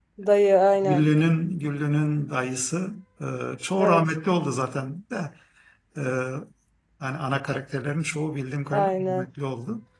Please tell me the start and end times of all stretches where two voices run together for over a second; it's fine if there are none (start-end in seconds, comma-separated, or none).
none